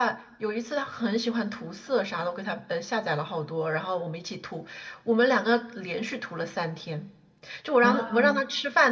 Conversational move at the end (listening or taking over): listening